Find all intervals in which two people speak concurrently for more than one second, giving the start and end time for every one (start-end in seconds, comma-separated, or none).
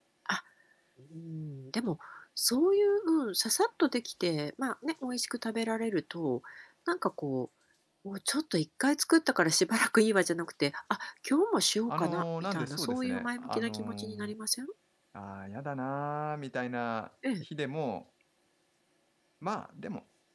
11.9-14.3